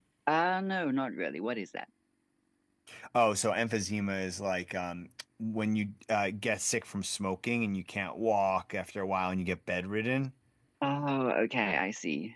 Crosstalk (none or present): none